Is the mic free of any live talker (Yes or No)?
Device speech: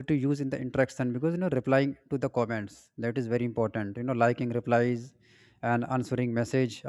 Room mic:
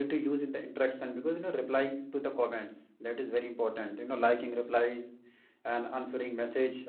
Yes